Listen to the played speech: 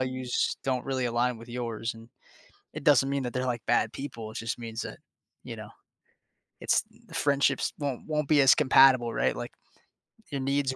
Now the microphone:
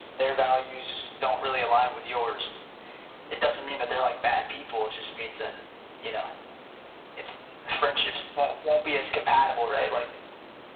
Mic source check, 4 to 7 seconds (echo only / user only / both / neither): echo only